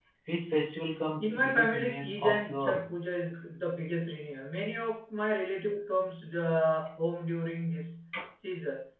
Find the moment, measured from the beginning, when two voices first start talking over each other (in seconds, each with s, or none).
1.2 s